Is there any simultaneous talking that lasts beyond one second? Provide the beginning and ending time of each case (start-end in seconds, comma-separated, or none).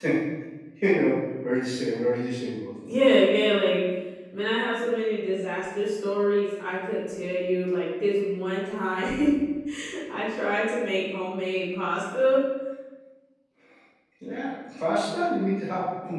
none